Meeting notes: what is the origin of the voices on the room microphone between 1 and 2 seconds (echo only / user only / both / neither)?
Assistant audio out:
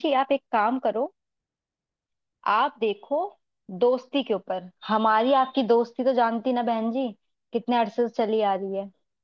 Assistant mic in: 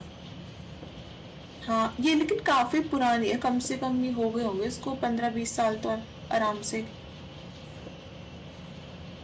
user only